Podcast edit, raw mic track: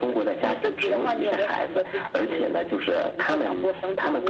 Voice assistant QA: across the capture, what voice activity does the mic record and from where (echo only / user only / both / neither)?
echo only